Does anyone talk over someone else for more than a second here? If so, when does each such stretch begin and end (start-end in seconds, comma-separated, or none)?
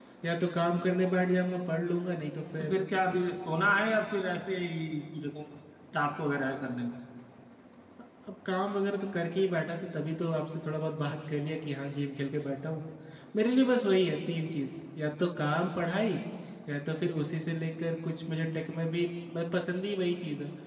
none